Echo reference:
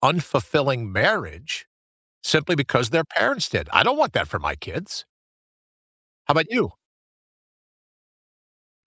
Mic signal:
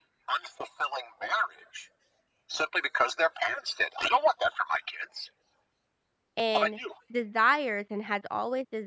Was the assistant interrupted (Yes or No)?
Yes